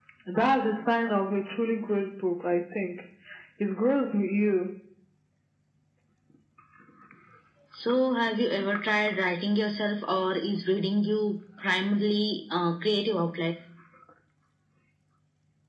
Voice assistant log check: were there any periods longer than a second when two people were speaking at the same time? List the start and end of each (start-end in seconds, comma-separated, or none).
none